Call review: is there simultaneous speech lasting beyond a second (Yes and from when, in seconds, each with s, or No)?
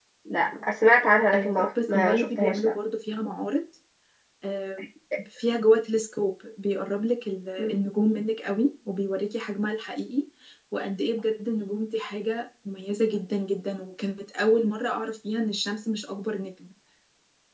Yes, from 1.3 s